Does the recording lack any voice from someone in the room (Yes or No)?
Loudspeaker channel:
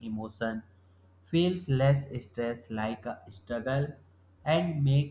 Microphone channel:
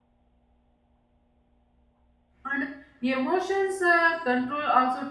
No